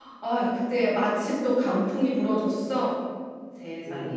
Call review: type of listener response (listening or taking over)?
taking over